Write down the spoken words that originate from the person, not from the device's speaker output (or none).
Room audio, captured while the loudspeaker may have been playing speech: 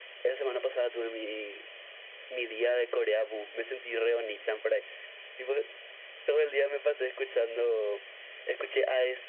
none